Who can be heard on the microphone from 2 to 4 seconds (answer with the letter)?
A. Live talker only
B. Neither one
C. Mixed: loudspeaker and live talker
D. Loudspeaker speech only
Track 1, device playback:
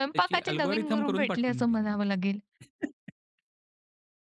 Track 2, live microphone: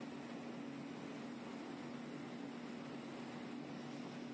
B